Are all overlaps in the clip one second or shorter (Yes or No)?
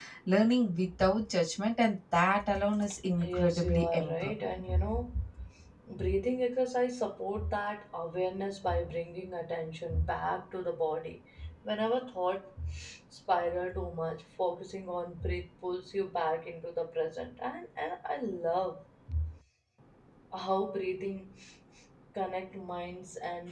No